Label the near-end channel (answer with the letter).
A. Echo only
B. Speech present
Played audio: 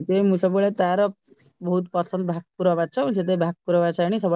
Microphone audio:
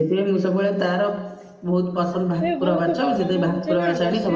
B